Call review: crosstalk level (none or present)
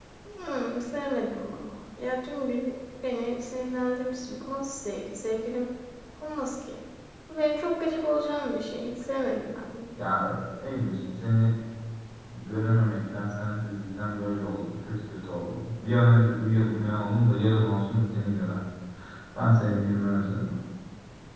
none